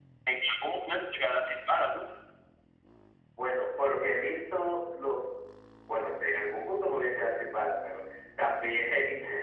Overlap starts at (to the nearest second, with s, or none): none